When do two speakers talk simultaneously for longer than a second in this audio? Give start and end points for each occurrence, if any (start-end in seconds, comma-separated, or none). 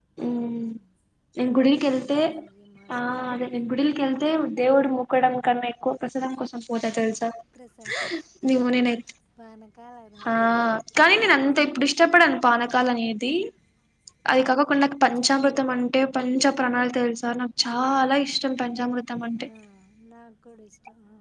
none